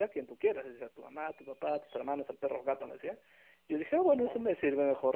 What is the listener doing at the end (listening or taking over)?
listening